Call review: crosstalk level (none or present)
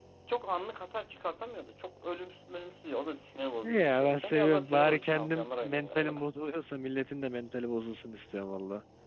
present